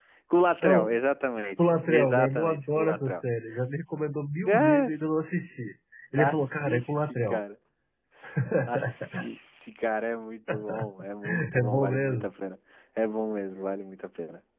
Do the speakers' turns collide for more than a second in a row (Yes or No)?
Yes